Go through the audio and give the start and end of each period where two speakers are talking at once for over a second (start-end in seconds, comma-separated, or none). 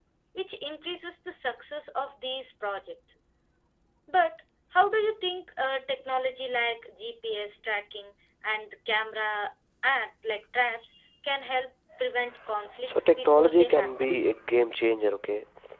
12.8-14.1